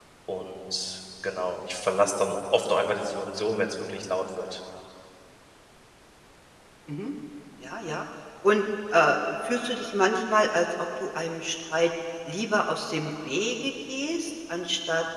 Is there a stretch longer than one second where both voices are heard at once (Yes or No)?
No